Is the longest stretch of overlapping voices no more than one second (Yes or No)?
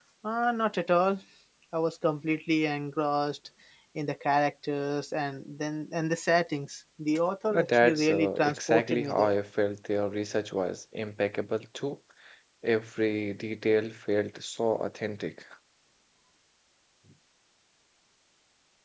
No